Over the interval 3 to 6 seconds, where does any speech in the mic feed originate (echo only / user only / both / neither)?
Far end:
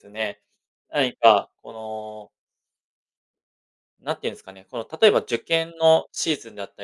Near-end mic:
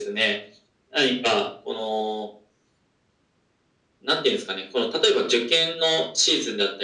echo only